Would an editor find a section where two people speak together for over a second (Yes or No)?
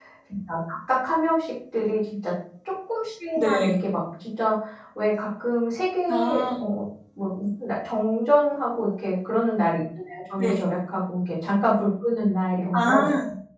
No